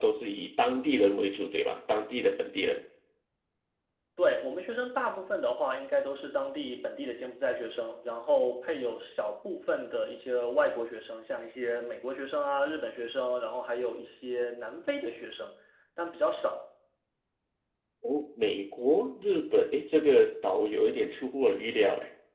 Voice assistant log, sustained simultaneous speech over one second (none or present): none